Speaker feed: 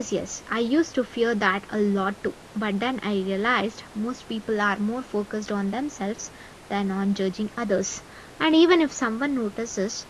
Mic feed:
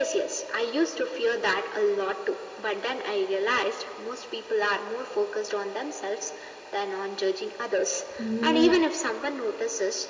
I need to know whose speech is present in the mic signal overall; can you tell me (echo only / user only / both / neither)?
both